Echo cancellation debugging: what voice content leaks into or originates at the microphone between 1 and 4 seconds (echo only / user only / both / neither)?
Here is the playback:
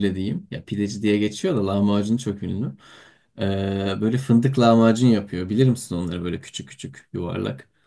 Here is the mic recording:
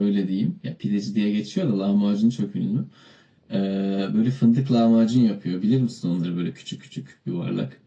echo only